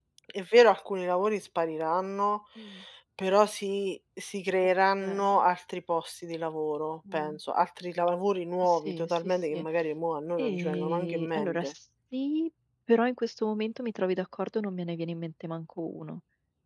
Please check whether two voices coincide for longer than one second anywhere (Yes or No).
Yes